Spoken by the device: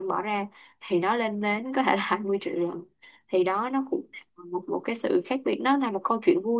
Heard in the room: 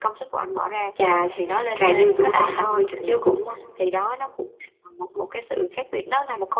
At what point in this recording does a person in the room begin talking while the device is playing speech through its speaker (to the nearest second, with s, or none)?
1 s